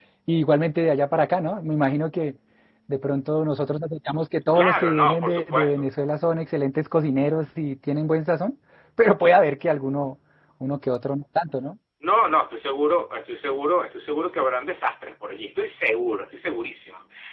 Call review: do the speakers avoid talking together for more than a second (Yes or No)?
No